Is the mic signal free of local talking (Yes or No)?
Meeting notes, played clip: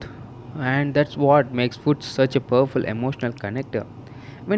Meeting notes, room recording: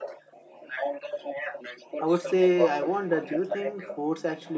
No